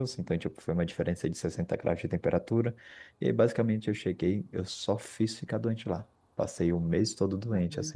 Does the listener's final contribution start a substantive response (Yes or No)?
No